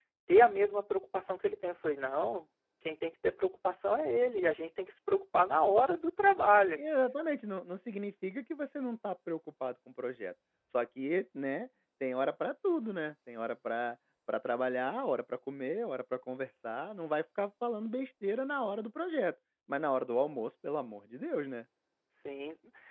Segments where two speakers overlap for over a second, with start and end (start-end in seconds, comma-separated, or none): none